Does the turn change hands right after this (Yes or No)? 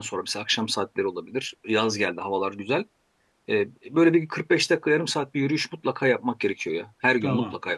Yes